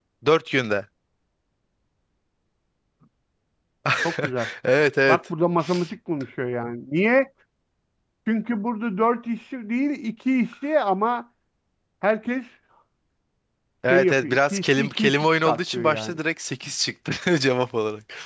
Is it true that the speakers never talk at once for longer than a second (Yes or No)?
No